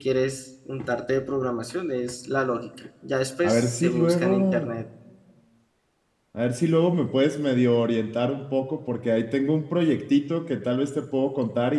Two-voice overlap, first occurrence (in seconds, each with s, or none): 3.4 s